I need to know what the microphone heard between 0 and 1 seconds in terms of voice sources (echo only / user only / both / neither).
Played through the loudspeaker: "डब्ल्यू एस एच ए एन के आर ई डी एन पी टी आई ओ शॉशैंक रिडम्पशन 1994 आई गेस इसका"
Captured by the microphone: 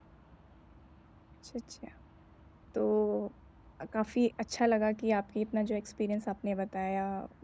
neither